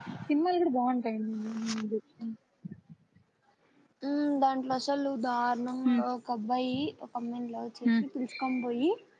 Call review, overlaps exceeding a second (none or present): none